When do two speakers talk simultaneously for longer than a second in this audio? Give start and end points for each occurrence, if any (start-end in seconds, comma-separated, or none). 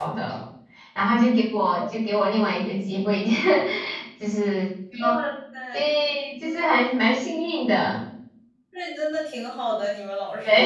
none